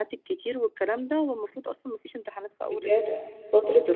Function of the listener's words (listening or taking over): taking over